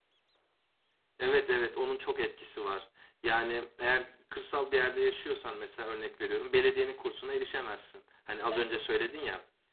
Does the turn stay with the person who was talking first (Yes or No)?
Yes